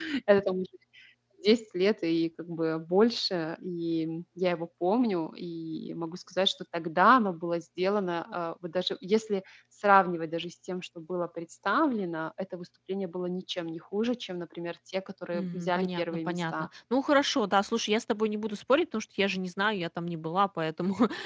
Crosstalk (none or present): present